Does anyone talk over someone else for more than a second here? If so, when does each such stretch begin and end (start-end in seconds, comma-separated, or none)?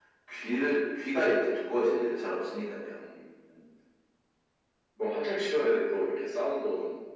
none